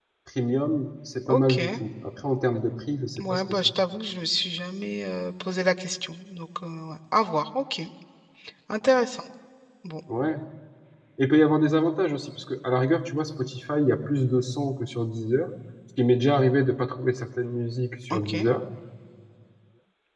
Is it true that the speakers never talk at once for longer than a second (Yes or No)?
Yes